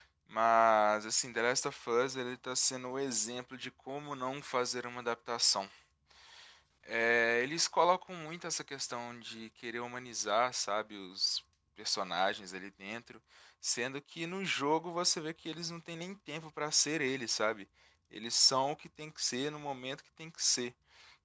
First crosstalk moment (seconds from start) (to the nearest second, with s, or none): none